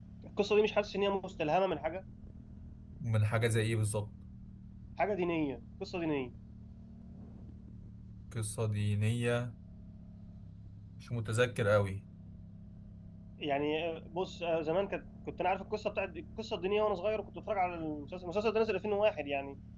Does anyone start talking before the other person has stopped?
No

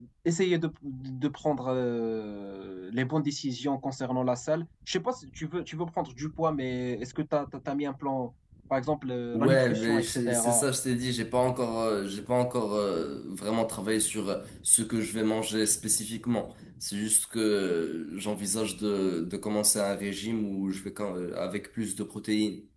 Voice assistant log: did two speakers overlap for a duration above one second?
Yes, from 9.3 s

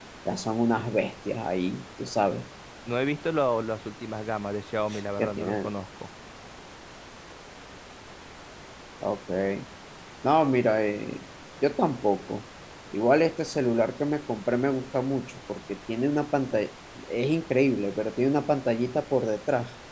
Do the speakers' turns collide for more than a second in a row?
No

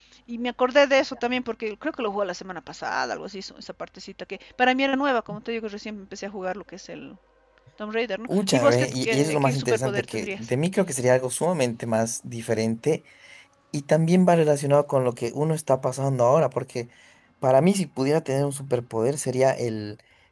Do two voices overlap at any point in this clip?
Yes, from 8.3 s

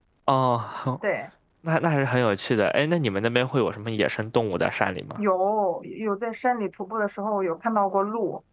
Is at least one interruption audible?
No

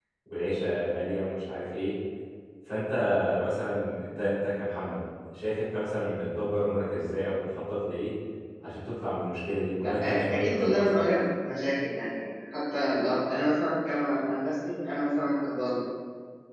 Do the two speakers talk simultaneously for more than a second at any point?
Yes, from 9.8 s

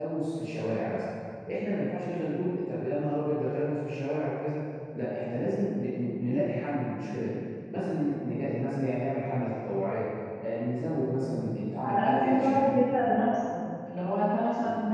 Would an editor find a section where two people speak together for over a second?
Yes, from 11.8 s

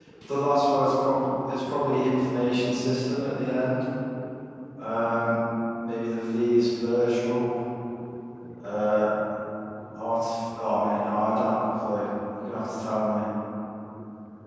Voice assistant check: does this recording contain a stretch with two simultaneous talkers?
No

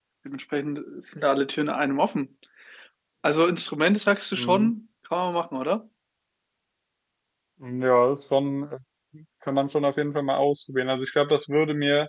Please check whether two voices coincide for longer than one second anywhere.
No

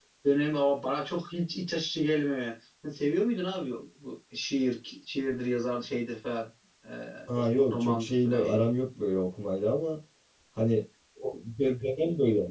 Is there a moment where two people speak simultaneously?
Yes, from 7.3 s

